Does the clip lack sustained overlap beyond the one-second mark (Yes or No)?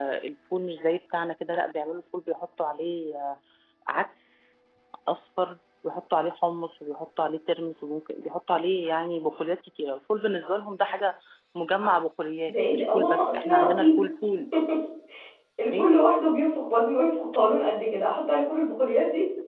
No